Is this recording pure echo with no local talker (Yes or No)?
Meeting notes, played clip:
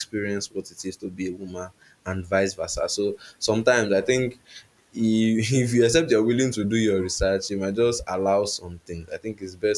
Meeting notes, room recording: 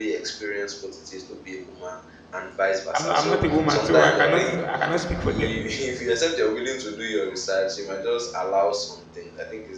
No